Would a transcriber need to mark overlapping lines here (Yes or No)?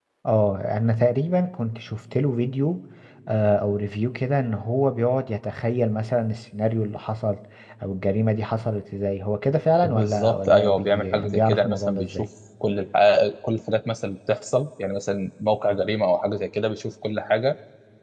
Yes